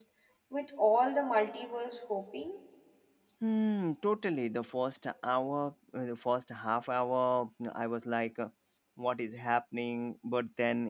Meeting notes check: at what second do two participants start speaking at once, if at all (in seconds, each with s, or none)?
none